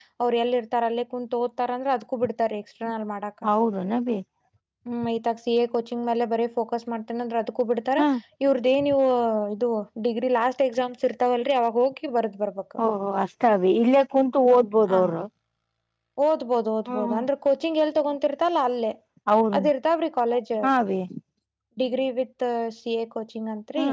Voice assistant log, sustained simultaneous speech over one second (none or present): none